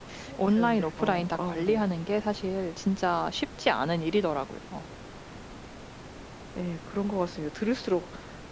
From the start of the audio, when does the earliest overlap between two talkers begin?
0.5 s

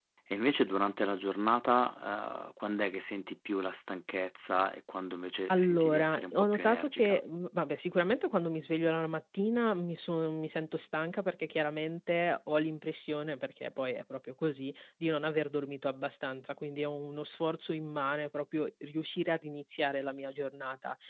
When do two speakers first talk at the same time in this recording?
5.5 s

